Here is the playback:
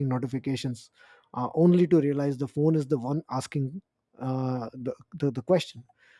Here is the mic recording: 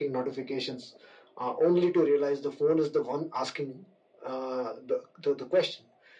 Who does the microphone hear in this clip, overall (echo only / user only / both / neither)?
echo only